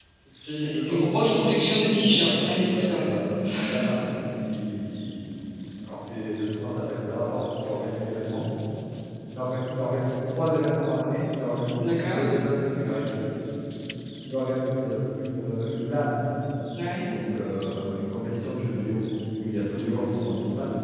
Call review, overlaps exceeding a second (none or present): present